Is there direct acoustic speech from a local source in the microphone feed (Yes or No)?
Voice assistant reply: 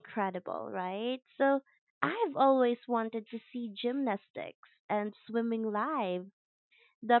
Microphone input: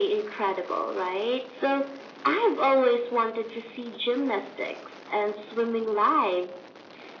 No